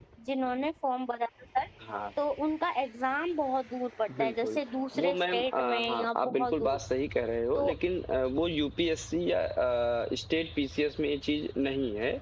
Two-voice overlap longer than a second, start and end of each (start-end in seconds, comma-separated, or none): 5.0-6.8